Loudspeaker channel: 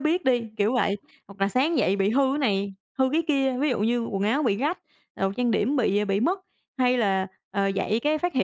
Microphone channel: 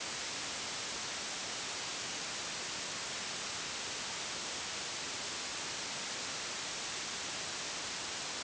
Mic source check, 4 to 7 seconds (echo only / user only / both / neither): neither